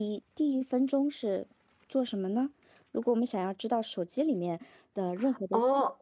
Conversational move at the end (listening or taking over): taking over